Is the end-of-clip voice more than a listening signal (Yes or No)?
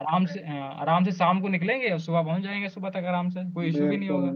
Yes